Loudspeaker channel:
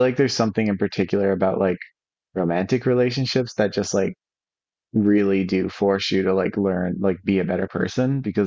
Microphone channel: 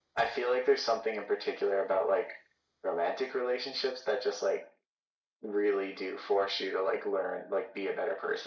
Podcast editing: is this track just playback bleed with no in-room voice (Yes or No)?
Yes